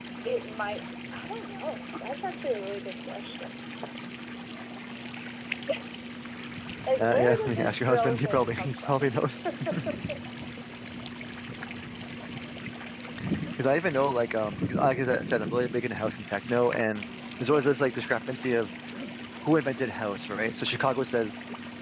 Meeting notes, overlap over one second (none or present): present